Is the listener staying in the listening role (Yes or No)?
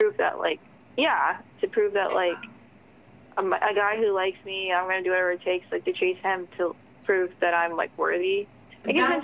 No